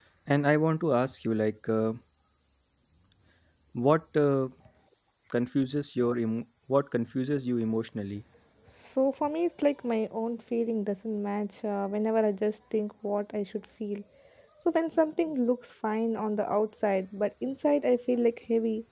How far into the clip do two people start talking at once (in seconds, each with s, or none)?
none